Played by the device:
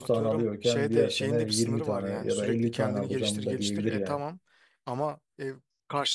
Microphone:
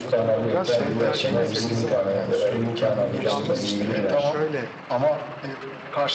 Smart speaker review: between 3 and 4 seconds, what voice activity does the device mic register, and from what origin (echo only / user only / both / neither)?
both